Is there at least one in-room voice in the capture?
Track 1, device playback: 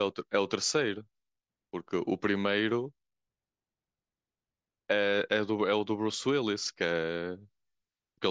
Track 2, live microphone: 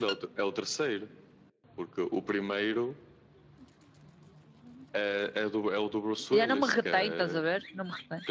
Yes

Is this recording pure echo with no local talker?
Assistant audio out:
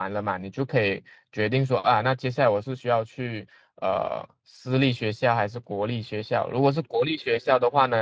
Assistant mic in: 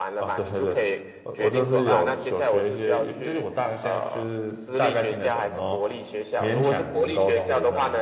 No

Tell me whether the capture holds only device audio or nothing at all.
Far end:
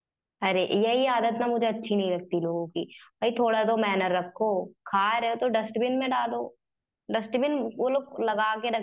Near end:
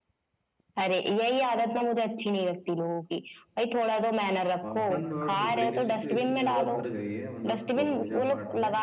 No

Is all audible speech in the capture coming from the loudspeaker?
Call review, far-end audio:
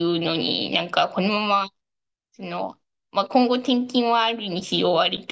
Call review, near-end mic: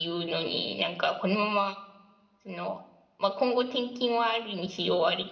Yes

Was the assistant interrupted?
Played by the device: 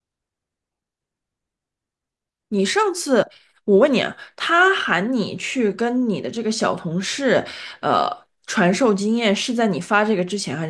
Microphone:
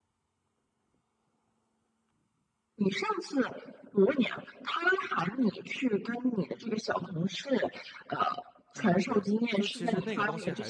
Yes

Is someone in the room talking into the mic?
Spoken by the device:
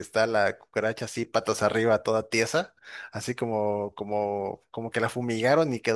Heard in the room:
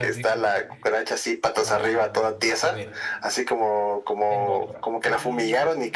Yes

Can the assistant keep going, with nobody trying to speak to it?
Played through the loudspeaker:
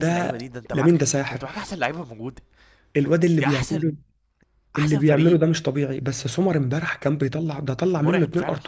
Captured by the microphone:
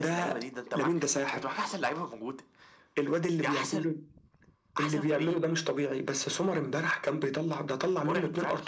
Yes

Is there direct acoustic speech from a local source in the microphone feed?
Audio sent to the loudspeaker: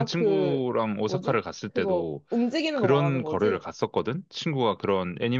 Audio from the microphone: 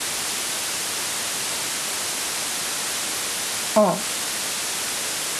Yes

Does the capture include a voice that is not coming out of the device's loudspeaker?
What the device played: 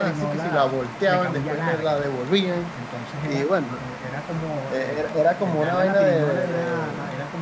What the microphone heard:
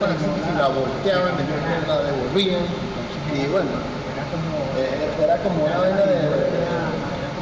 No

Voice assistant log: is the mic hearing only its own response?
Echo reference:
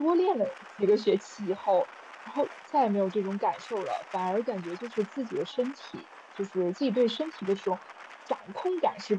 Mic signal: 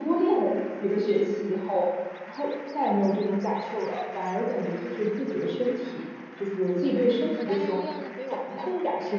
No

